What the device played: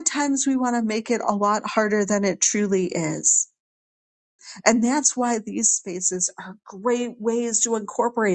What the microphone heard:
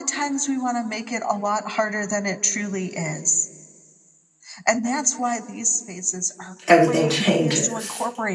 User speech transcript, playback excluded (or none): everything changes.